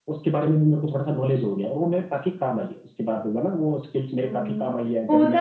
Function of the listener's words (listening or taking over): taking over